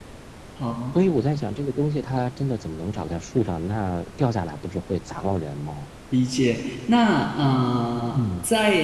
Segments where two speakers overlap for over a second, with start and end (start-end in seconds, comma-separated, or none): none